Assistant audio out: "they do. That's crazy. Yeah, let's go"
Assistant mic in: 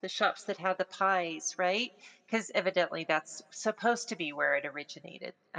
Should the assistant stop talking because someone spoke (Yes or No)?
Yes